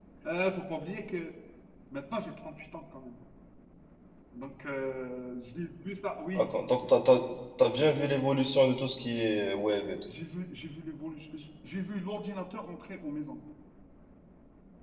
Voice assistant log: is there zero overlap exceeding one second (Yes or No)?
Yes